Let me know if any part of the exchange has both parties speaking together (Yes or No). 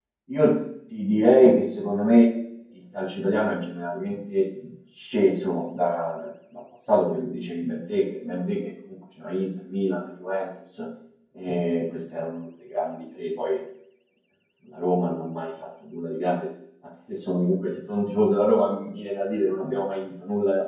No